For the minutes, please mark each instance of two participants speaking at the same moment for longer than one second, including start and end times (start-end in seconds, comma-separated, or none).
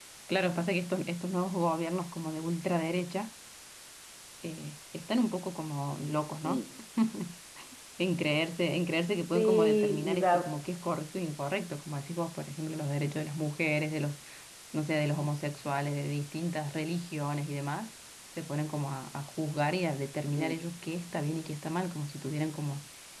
9.3-10.6